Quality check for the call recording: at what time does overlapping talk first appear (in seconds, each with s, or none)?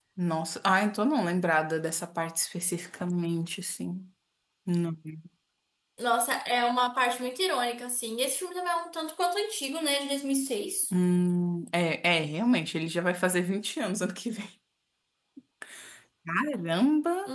none